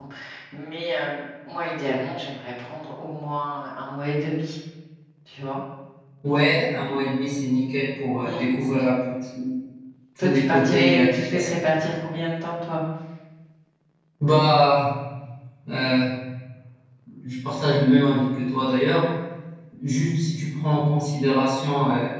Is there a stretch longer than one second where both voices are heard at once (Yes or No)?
Yes